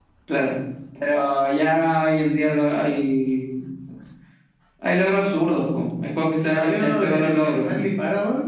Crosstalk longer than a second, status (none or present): present